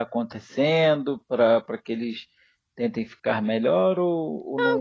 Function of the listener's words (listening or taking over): taking over